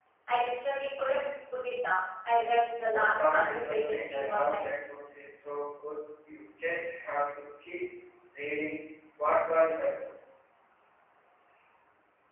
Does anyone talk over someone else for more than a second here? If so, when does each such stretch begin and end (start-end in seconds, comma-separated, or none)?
2.9-4.6